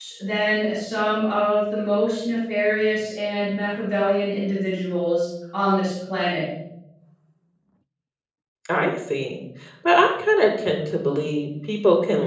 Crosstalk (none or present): none